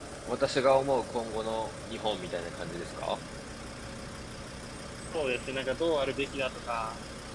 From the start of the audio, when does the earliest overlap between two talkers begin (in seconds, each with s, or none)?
none